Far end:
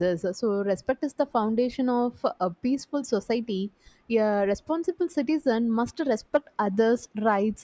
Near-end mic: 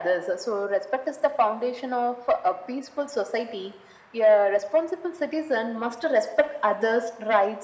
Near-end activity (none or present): none